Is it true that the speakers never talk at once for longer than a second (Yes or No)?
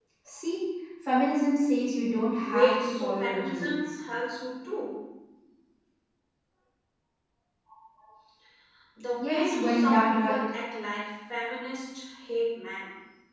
No